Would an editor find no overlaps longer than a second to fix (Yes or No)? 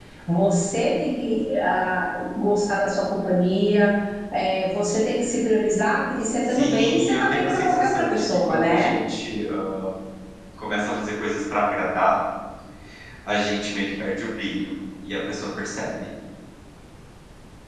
No